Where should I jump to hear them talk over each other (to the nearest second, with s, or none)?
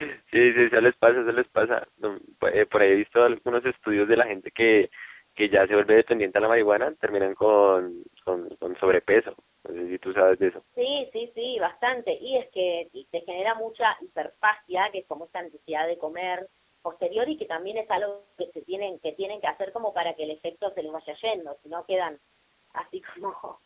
none